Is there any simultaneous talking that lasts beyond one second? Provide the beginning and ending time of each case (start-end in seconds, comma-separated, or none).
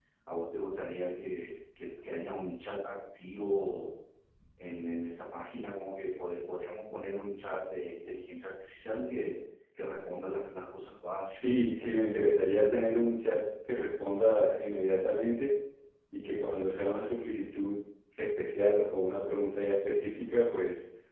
none